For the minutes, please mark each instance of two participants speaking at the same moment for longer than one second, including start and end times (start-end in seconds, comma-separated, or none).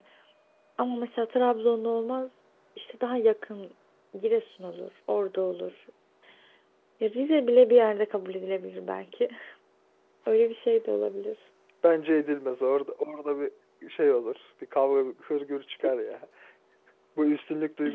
none